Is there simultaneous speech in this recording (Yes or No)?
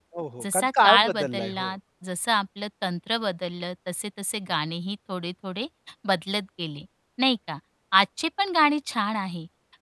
Yes